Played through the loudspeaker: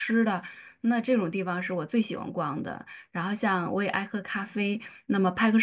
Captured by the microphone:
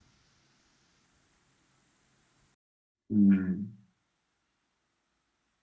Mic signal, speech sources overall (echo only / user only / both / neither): user only